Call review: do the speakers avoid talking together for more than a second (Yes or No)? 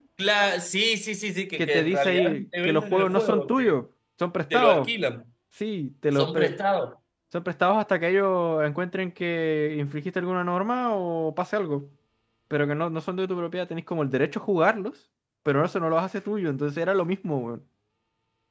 No